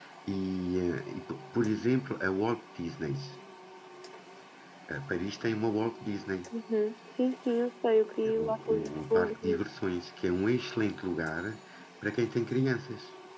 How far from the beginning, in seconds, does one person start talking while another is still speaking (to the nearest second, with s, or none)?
8 s